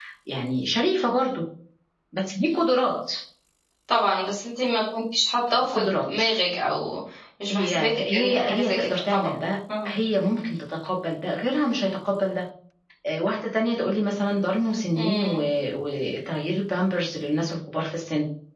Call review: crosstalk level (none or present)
present